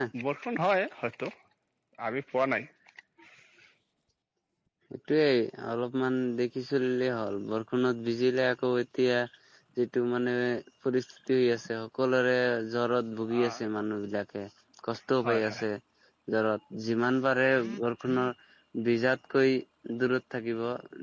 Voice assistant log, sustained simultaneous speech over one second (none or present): none